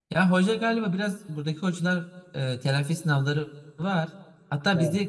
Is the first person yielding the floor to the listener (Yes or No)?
No